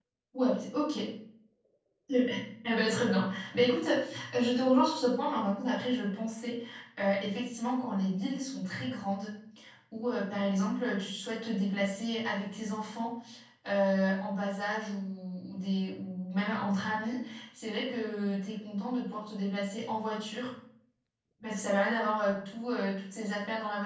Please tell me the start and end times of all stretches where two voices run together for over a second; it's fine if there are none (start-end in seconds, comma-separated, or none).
none